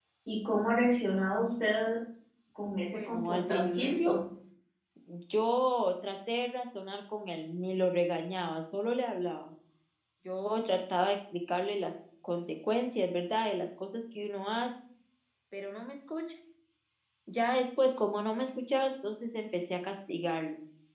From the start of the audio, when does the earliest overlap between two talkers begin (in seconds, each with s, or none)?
2.9 s